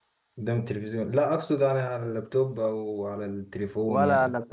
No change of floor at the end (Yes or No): No